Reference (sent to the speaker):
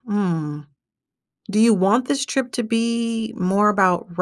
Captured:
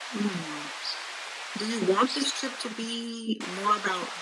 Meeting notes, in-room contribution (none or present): none